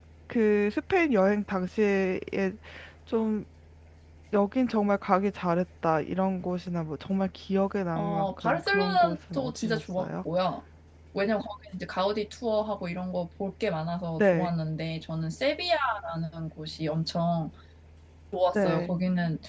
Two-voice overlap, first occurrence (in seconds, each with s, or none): 8.0 s